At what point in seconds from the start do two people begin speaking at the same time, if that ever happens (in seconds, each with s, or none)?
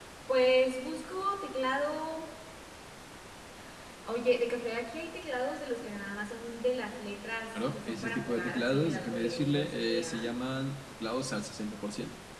7.5 s